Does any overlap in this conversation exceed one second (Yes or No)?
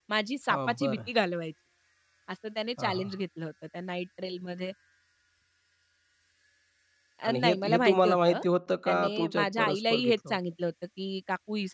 Yes